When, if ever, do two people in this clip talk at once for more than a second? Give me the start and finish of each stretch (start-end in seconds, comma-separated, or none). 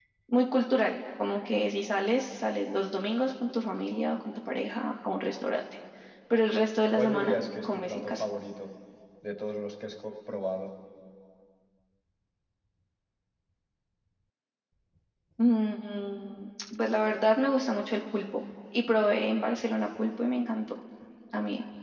7.0-8.2